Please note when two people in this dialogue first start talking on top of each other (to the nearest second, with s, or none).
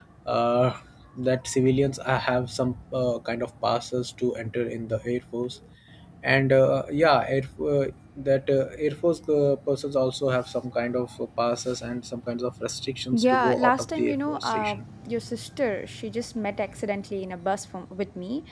13 s